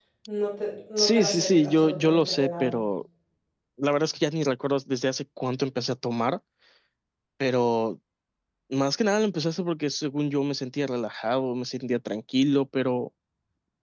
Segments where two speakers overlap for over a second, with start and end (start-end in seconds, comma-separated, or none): 1.0-2.7